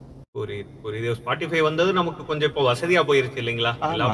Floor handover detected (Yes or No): Yes